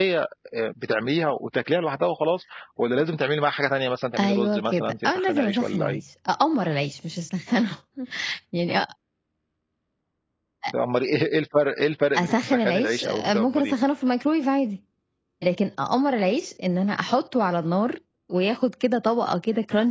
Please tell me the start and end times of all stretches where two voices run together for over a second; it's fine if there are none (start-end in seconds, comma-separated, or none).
4.2-6.0, 12.2-13.7